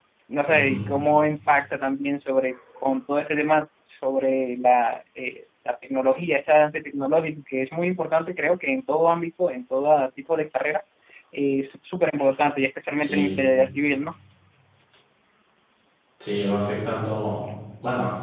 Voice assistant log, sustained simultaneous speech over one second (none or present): none